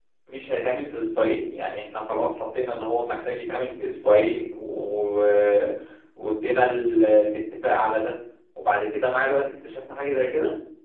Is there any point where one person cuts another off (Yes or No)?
No